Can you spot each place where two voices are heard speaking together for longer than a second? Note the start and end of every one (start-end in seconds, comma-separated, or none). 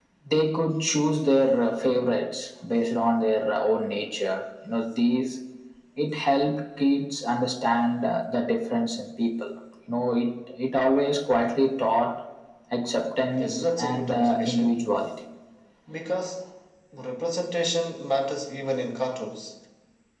13.3-14.9